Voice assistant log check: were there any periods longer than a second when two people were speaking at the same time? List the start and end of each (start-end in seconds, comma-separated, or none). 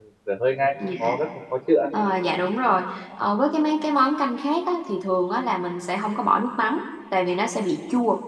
none